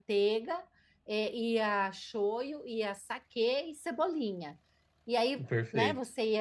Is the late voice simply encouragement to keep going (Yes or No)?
Yes